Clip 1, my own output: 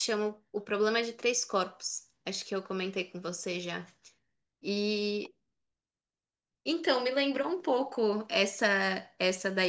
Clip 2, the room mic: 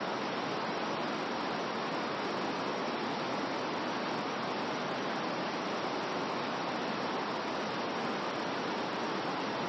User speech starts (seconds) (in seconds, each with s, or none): none